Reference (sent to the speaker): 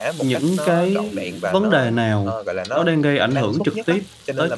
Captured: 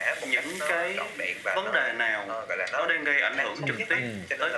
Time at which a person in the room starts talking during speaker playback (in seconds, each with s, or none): 3.6 s